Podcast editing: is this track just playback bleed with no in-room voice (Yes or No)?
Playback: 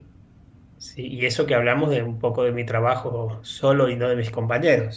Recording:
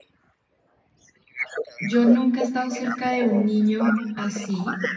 No